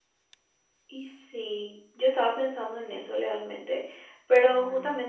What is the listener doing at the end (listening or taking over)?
listening